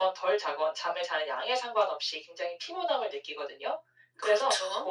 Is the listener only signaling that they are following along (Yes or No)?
Yes